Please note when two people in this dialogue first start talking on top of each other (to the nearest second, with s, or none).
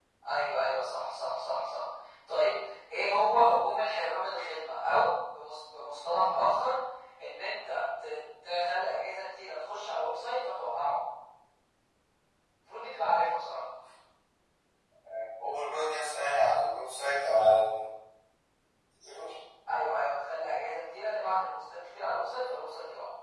none